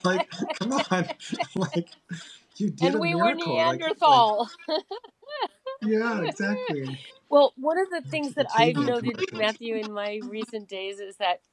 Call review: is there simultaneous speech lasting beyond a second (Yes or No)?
Yes